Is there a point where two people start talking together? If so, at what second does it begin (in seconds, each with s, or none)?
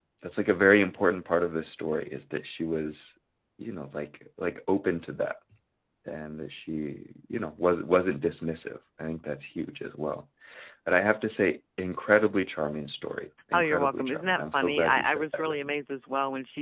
13.5 s